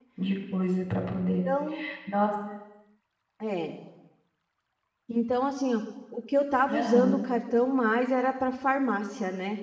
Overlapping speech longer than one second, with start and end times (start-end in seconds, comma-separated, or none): none